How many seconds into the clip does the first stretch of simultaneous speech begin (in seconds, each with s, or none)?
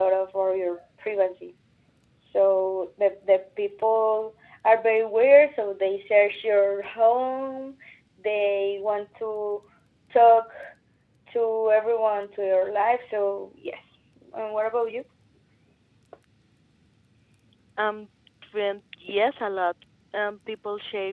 none